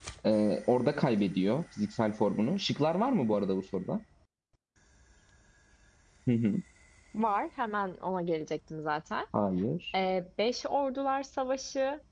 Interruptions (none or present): none